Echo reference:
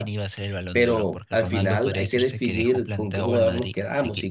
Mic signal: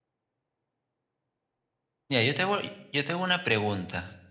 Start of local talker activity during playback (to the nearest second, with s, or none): 2 s